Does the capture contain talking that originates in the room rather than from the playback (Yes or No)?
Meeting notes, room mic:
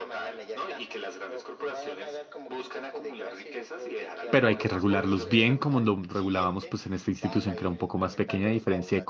Yes